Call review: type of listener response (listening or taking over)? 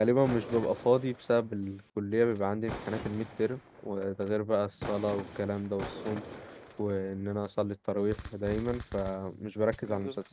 listening